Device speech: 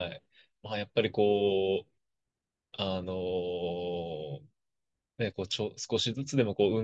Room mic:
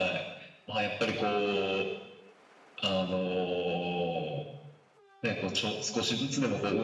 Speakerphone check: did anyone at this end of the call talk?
No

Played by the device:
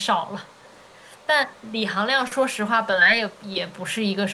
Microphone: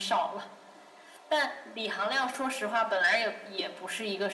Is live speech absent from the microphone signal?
Yes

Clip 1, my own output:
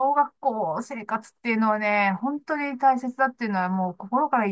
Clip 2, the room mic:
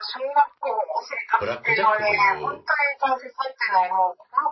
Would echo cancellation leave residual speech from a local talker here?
Yes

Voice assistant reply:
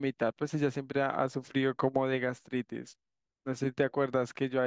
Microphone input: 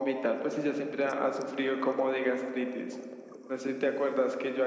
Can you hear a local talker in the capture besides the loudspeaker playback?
No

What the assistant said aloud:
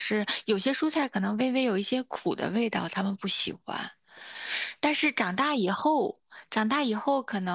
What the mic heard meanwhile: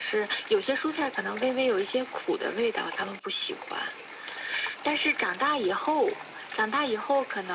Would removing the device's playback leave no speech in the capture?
Yes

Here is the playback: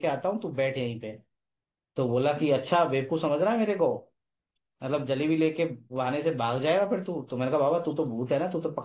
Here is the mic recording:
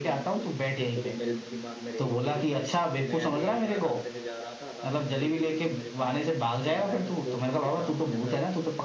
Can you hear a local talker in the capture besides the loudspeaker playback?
Yes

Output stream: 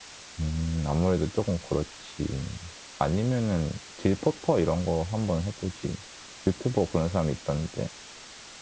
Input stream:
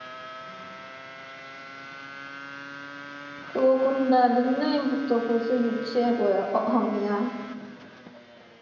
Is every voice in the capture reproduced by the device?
No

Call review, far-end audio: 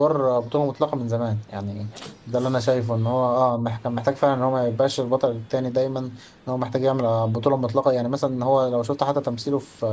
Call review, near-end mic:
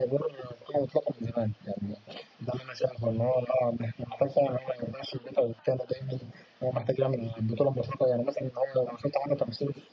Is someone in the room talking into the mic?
No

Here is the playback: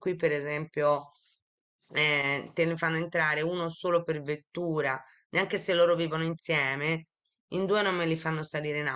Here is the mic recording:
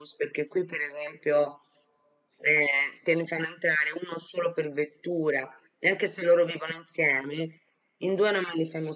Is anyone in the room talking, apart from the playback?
No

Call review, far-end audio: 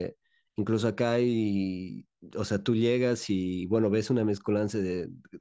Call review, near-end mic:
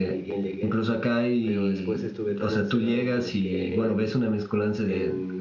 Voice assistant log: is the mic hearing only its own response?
No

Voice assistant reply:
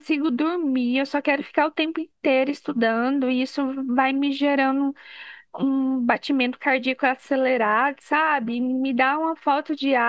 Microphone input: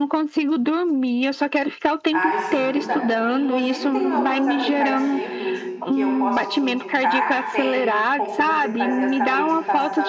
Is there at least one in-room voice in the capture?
Yes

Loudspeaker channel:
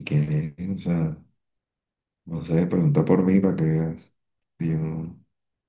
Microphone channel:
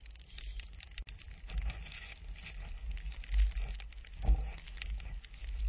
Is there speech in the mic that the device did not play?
No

